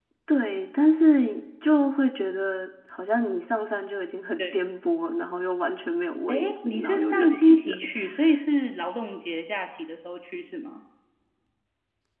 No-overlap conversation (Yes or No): No